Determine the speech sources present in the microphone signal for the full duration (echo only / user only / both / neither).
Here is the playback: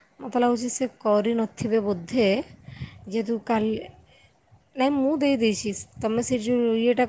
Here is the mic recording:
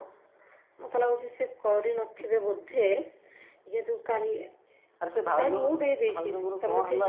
both